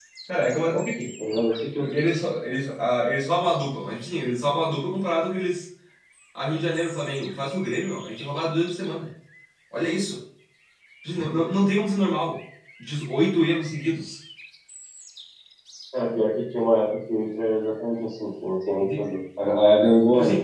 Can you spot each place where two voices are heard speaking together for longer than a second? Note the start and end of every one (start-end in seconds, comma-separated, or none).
none